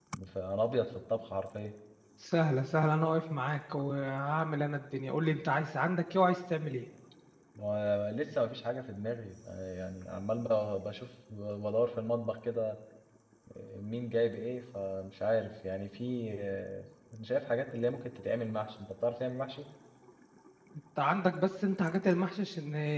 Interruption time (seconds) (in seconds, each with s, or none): none